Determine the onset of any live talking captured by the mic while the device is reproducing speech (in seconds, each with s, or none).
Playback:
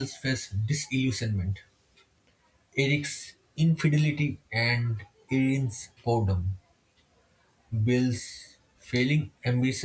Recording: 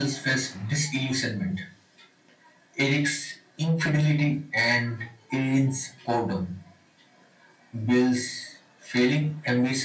none